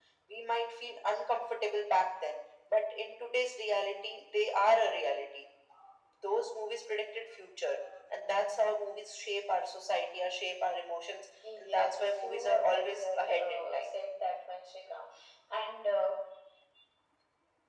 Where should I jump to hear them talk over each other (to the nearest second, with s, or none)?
11 s